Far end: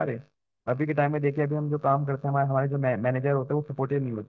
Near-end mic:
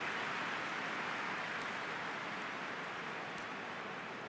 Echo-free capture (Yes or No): Yes